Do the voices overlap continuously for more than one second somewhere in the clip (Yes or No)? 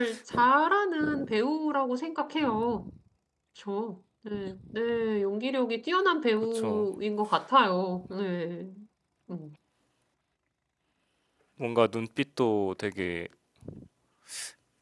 No